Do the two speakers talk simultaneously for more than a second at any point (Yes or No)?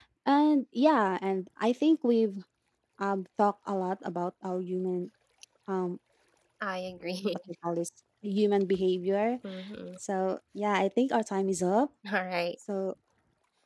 No